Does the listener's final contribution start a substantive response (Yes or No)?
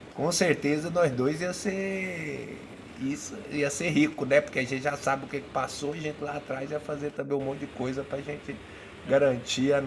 No